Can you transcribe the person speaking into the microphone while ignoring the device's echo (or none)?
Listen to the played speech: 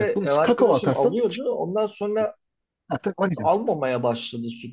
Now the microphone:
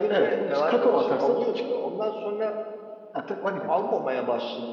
none